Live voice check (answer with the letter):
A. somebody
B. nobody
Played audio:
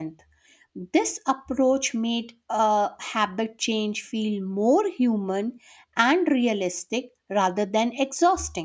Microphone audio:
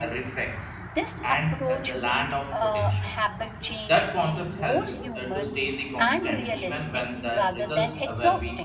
A